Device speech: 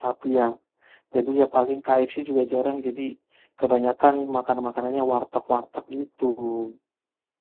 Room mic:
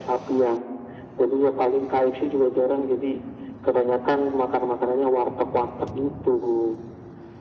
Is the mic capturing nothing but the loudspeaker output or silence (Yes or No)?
Yes